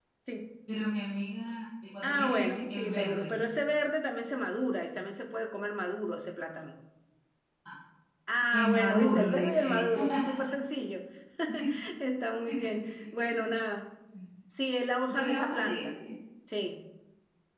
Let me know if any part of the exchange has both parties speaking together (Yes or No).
Yes